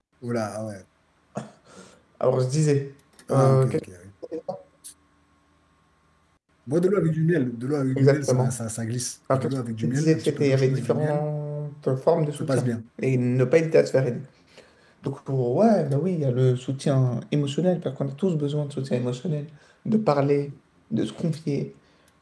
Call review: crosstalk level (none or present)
present